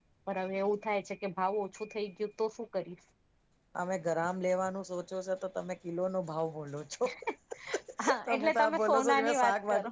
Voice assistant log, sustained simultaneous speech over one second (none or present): present